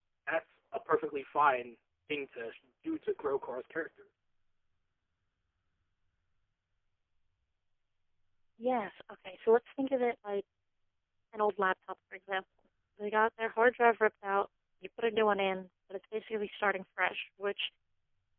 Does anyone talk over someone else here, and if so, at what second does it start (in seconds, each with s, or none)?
none